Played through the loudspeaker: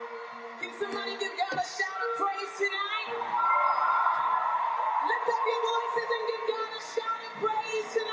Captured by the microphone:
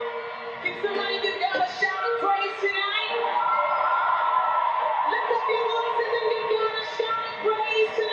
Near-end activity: none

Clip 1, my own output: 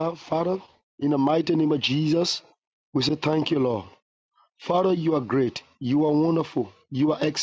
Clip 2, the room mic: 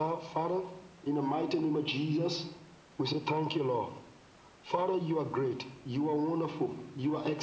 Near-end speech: none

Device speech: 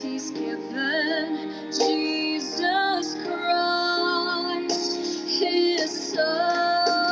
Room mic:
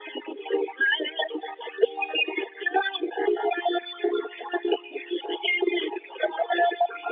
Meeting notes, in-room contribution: none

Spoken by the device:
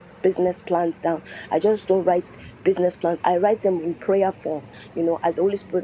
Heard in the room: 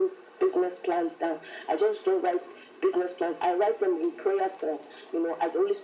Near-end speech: none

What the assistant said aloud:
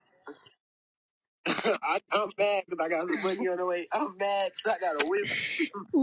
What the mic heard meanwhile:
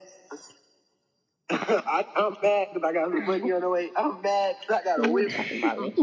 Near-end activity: present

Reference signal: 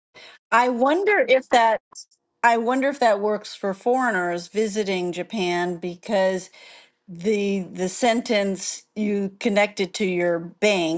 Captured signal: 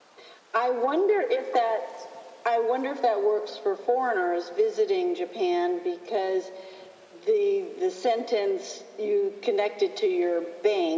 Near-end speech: none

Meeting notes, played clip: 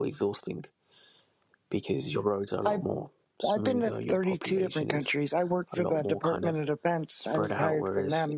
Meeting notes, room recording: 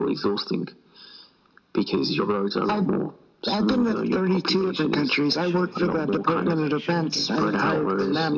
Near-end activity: present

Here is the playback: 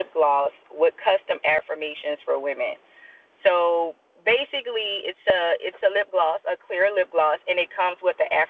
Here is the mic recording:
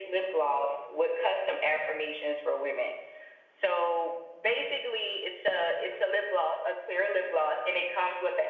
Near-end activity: none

